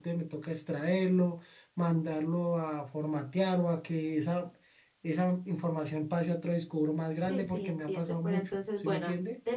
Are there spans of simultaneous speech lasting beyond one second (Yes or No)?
Yes